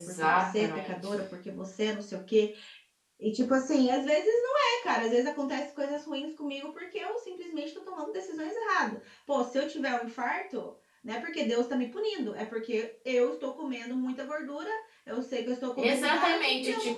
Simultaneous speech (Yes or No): Yes